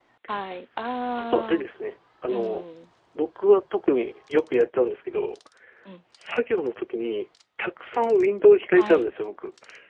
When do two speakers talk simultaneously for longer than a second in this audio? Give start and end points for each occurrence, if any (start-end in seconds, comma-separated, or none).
none